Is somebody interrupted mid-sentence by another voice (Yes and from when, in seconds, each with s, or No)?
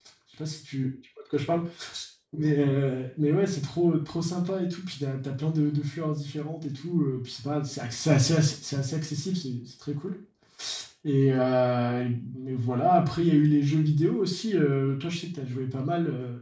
No